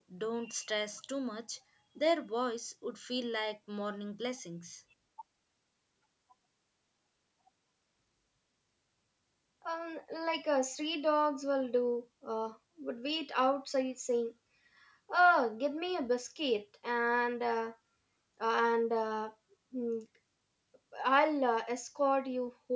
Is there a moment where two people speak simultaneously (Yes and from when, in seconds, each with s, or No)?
No